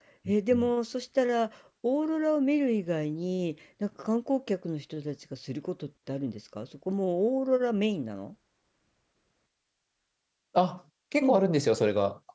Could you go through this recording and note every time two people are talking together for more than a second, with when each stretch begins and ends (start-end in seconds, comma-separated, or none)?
none